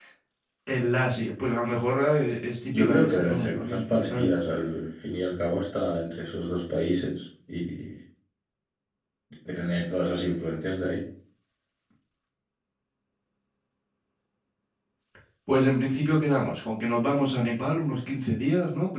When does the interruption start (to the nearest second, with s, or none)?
3 s